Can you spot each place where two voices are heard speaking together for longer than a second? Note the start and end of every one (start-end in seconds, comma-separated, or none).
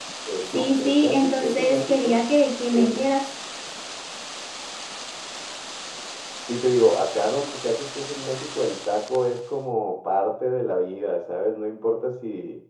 0.5-2.2